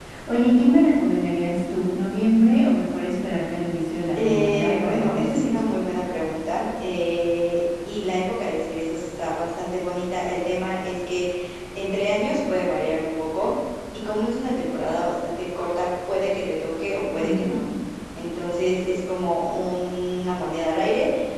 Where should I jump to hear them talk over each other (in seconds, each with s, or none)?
4.2 s